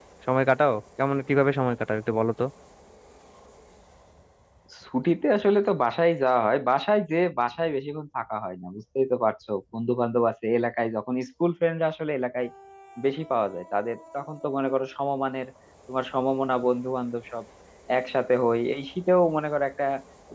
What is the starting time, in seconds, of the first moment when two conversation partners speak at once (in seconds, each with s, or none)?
none